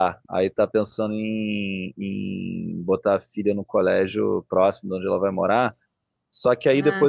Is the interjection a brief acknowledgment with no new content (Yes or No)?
Yes